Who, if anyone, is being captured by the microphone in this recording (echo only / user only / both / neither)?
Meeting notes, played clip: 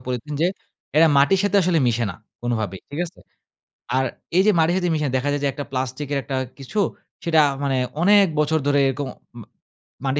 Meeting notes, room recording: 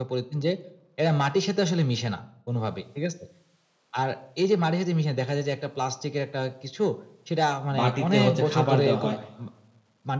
both